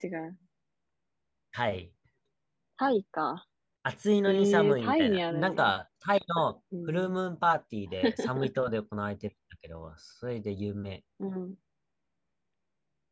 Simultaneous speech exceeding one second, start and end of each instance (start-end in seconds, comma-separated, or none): 4.3-5.7